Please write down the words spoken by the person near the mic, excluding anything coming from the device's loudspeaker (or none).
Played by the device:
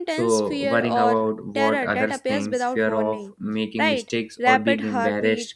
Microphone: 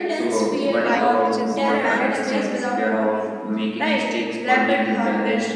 type, which is the panic disorder.